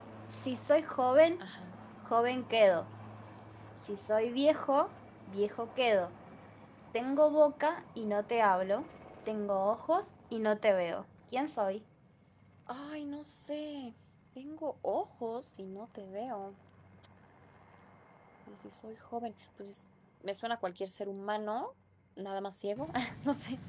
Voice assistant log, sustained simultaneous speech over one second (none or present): none